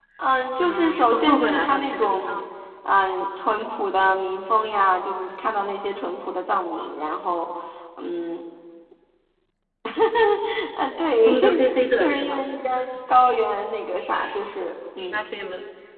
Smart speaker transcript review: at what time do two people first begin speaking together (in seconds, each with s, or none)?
0.6 s